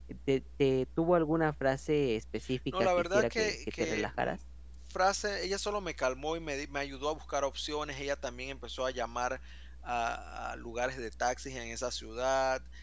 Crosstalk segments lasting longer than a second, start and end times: 2.8-4.4

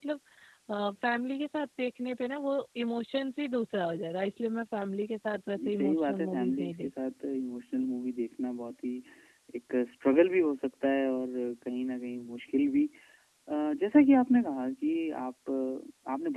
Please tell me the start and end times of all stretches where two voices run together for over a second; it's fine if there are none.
5.6-6.9

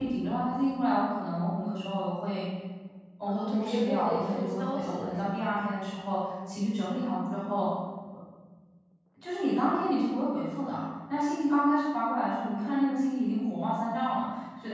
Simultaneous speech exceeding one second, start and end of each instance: 3.3-5.4

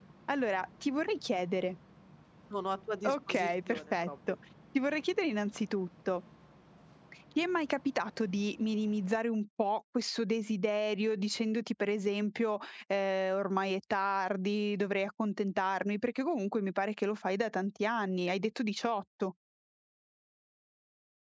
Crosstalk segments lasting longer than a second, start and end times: 3.0-4.4

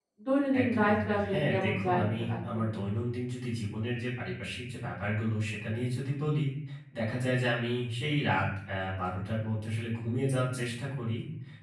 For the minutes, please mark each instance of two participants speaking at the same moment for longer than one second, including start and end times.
0.6-2.7

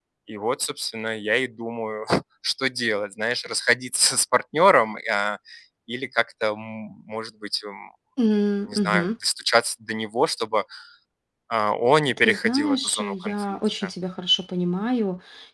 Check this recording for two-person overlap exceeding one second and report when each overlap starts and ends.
12.2-13.9

